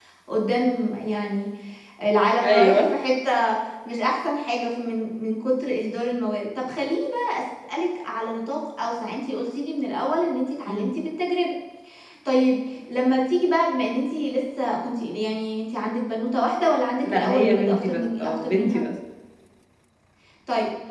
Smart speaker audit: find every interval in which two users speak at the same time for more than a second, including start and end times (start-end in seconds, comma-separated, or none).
17.0-18.8